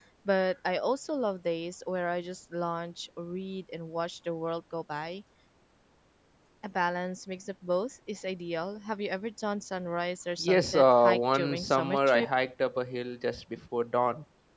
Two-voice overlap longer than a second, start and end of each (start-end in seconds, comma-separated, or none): 10.4-12.3